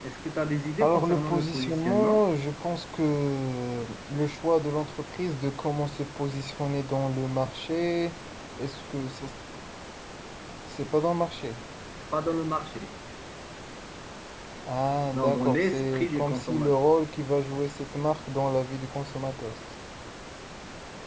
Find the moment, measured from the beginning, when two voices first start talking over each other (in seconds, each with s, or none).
0.8 s